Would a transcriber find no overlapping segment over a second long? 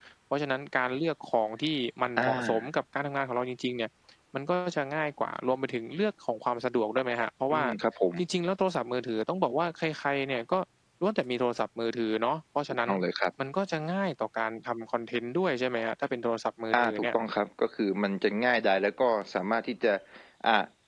Yes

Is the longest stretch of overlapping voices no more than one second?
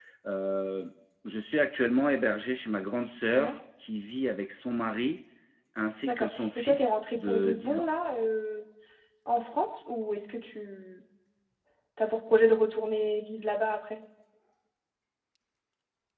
No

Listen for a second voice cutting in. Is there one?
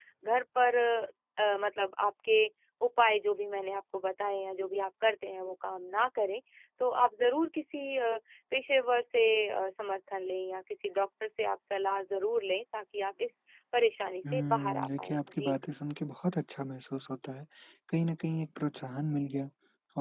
Yes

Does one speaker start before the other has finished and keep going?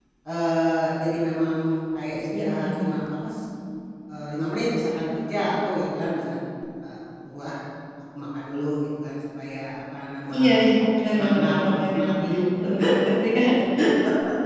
Yes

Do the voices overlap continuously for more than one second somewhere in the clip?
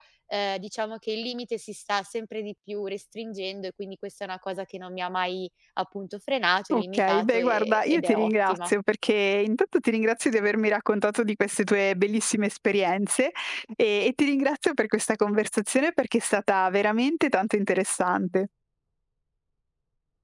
Yes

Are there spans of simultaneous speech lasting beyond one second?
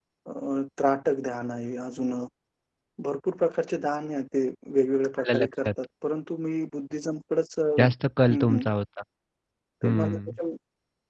No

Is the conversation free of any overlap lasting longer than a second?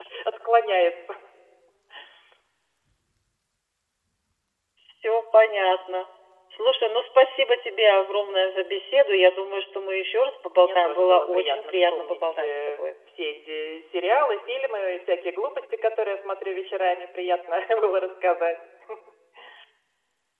No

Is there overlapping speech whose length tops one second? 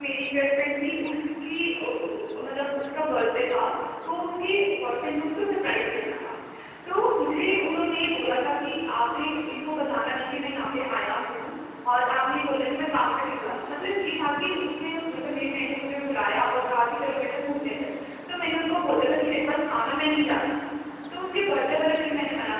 No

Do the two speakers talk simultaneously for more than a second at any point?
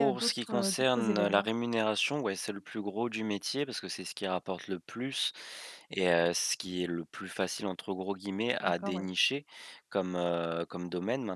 Yes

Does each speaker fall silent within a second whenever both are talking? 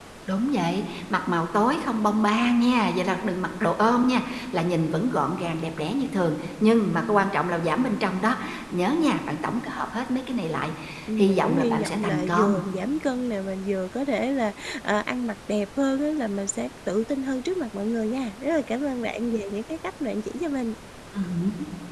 No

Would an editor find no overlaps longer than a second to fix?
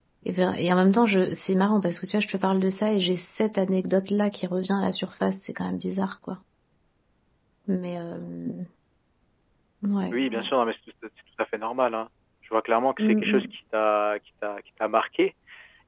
Yes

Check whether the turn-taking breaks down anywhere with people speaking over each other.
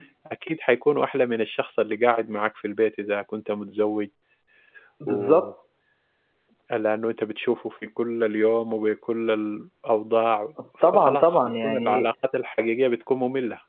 Yes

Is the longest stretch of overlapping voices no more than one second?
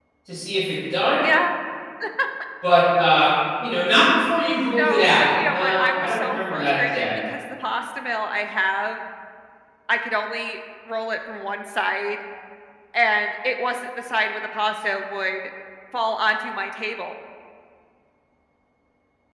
No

